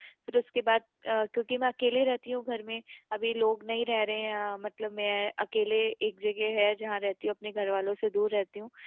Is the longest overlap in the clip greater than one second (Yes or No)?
No